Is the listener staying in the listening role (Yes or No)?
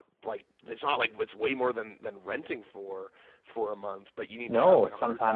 No